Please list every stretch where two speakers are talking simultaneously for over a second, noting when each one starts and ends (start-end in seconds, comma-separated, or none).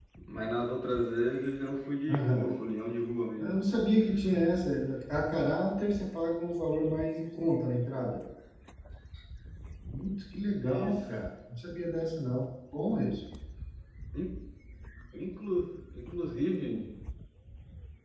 none